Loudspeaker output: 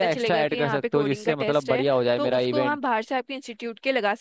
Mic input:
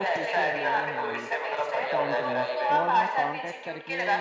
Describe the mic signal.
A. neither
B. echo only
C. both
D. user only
C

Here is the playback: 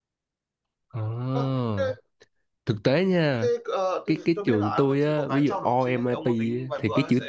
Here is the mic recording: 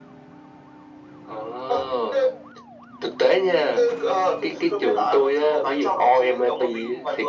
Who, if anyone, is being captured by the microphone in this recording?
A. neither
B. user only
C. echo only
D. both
C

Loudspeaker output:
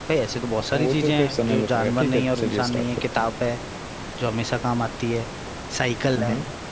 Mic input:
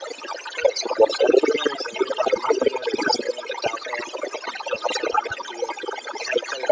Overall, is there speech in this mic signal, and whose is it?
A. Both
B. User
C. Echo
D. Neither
C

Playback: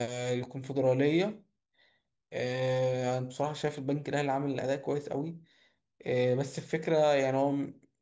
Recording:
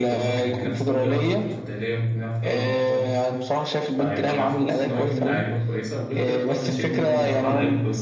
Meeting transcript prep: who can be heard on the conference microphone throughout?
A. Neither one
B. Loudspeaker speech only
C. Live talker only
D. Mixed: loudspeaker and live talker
D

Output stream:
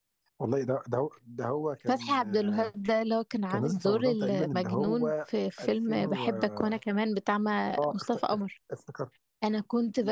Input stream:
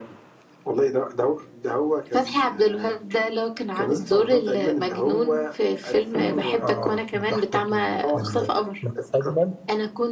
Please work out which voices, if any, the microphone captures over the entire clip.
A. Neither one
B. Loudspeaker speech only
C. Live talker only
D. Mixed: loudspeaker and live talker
D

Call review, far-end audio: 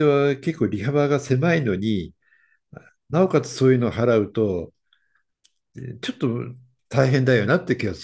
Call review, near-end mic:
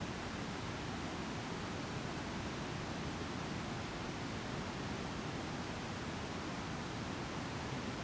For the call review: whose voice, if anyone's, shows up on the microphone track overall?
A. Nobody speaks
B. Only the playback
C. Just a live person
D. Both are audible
A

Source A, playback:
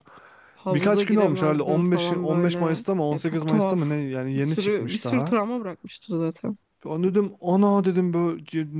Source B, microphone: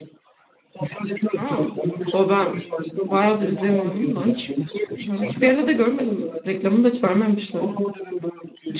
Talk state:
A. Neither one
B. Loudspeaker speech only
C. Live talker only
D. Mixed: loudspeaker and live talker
D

